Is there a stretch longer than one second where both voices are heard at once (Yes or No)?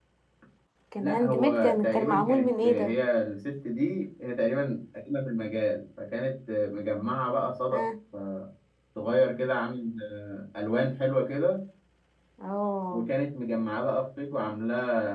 Yes